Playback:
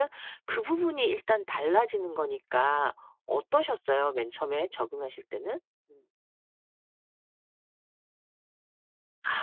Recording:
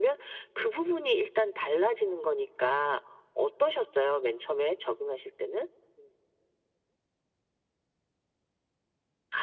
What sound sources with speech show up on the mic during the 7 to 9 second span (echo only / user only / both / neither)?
neither